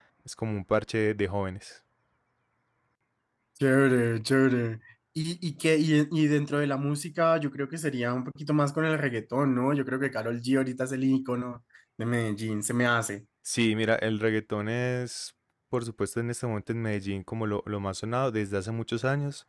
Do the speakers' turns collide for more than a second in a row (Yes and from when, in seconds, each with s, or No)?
No